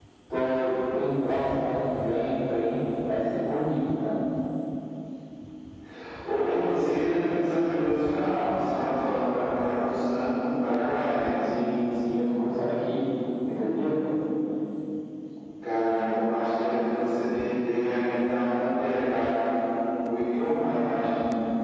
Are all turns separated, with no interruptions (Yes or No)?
Yes